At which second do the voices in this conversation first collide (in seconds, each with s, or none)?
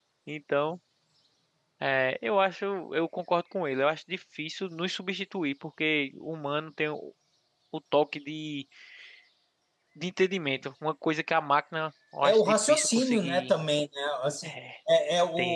12.2 s